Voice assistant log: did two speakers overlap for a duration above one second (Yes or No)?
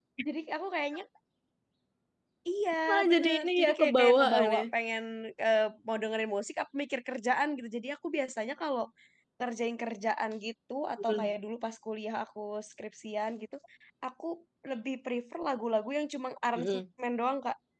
Yes